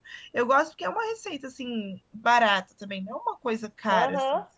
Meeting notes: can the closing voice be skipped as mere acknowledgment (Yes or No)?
No